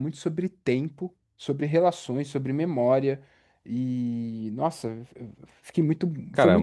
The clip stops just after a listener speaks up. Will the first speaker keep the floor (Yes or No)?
No